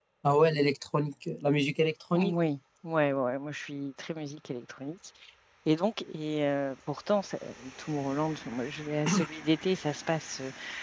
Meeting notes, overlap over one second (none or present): none